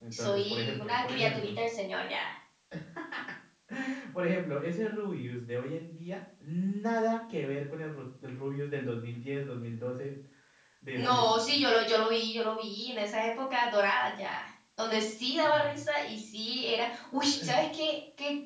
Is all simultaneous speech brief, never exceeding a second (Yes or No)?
No